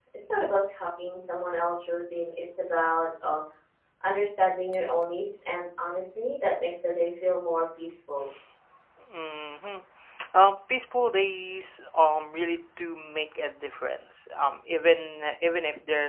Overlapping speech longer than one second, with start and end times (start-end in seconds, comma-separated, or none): none